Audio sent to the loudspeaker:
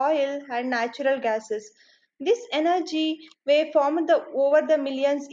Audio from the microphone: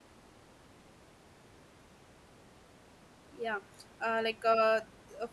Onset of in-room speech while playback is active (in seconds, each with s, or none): 3.4 s